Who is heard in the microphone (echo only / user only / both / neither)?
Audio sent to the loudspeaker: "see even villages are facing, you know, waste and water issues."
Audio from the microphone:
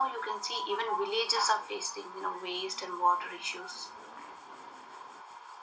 echo only